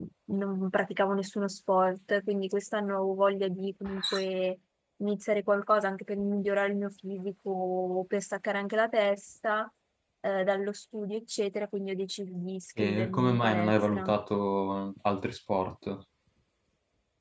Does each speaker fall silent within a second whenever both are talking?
No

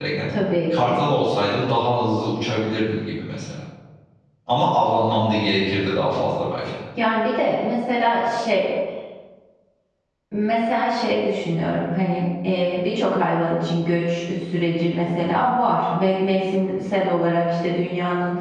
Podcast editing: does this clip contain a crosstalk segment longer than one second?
No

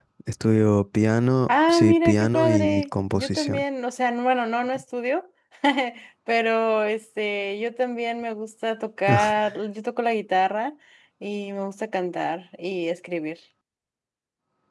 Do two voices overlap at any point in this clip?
Yes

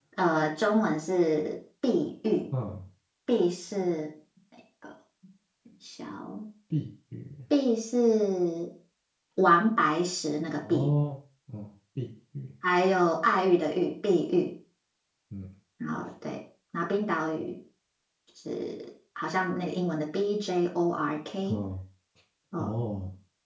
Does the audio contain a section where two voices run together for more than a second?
No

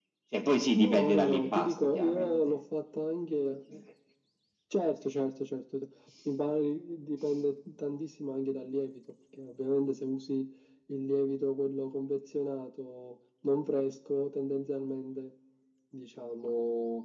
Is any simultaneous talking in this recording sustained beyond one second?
Yes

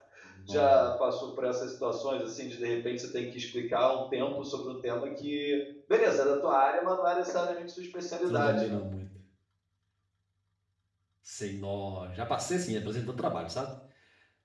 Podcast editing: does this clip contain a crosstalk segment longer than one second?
No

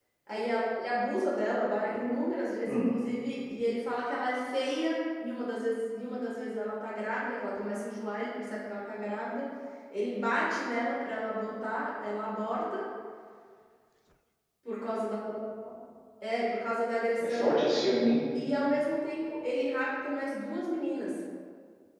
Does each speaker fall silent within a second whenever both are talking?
Yes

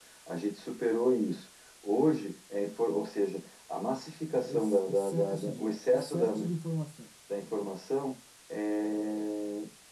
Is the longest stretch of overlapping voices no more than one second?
No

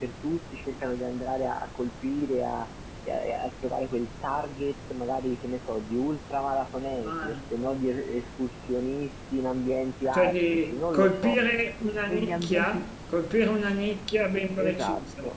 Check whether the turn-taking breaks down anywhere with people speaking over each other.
Yes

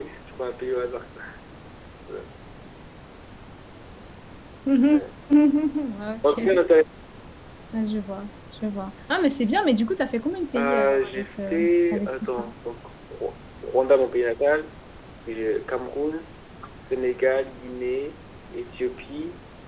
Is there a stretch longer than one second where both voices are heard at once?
Yes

